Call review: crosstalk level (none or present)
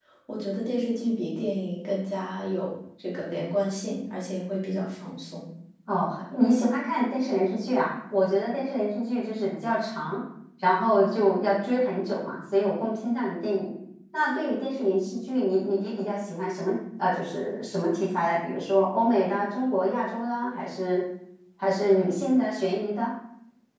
none